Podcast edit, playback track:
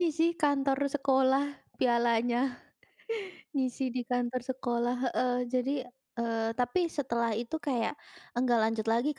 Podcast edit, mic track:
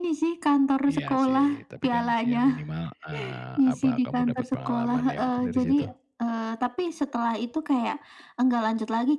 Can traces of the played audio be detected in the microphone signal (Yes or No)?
Yes